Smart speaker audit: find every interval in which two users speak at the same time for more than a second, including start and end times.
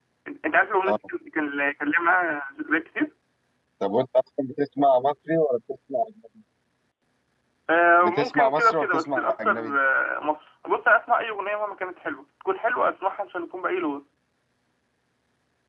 8.0-9.7

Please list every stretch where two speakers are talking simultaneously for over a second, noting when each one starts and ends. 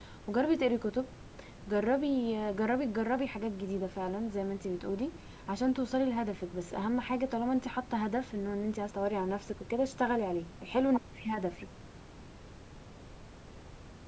none

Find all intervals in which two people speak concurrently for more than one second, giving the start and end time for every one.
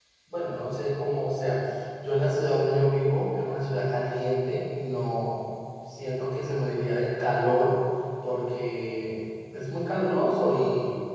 none

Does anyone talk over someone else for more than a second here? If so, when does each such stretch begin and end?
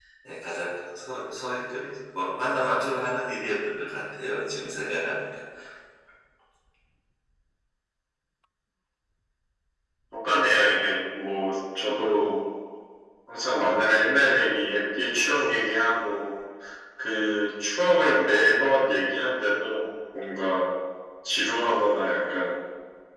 none

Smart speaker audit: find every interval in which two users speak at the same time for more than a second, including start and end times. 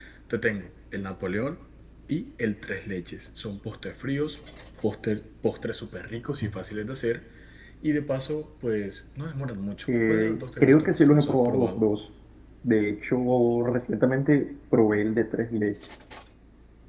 10.1-11.8

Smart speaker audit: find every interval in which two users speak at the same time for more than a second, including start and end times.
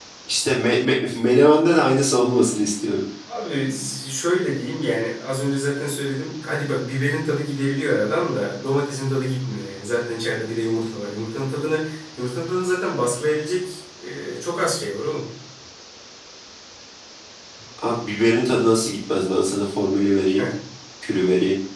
none

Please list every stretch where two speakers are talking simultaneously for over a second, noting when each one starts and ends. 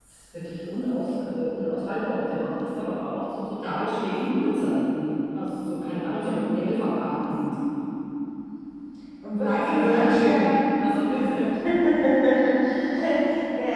9.4-10.6

